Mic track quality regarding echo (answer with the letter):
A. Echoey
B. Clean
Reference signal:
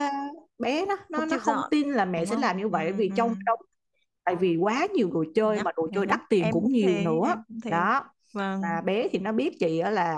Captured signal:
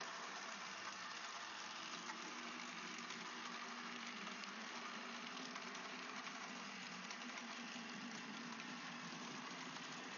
B